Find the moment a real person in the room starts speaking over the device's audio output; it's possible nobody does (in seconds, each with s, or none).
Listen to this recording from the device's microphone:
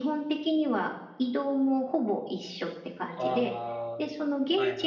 3.2 s